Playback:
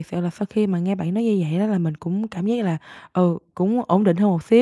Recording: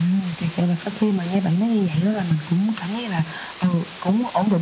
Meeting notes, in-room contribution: none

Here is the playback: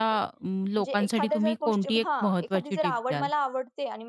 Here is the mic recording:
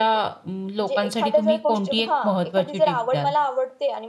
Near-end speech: none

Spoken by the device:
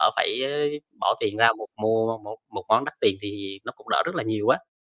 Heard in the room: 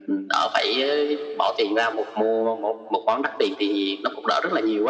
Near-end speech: none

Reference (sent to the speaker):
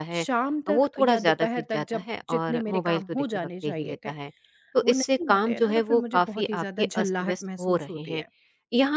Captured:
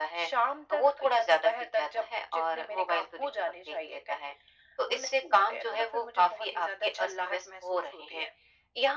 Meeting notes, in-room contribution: none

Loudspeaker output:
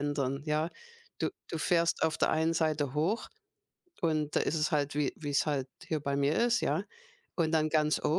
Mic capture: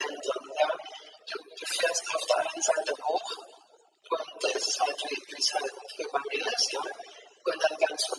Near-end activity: none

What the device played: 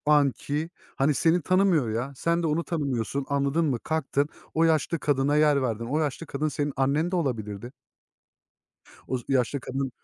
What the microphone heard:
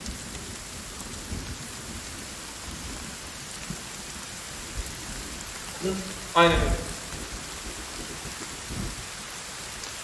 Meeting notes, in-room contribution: present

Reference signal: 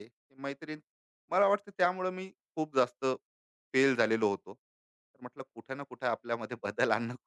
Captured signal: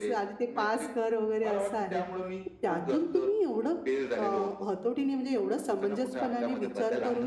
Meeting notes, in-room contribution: present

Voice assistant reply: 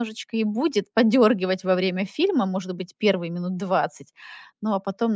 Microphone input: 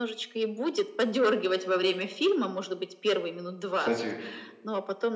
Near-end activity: present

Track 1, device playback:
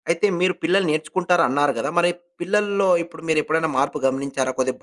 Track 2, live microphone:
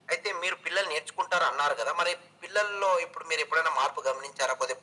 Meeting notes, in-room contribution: none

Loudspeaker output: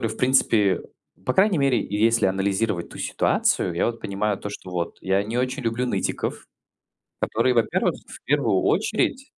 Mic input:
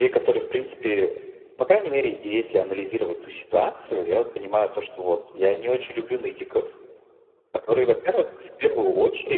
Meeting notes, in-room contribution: none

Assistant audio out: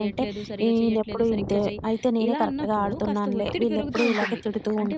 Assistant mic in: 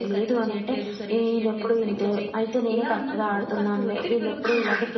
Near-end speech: none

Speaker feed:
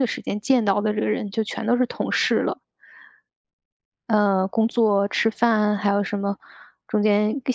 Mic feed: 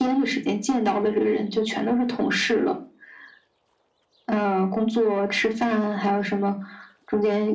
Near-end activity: none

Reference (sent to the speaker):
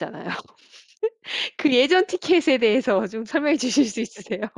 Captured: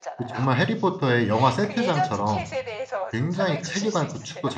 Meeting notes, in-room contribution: present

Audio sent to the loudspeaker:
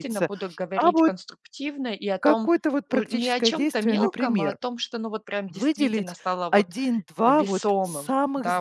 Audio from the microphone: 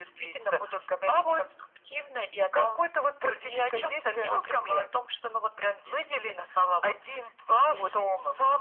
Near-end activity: none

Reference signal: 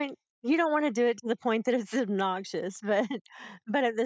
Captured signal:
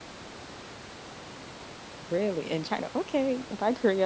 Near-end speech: present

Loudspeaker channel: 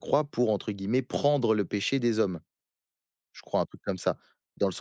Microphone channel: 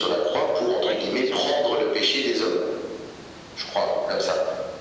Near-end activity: present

